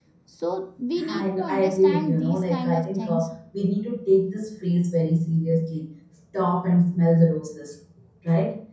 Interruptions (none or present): present